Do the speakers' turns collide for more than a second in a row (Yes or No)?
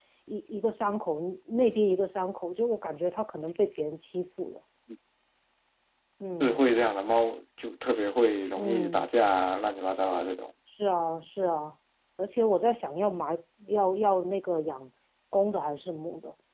No